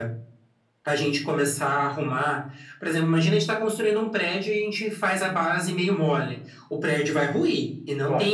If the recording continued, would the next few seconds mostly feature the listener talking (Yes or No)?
No